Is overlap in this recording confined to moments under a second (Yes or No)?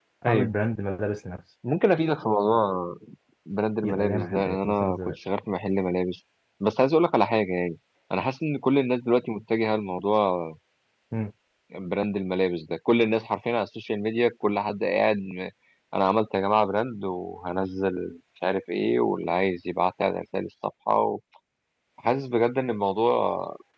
No